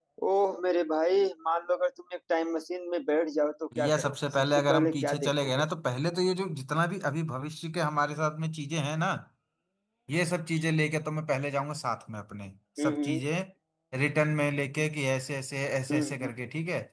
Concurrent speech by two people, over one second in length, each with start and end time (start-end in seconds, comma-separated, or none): 3.8-5.7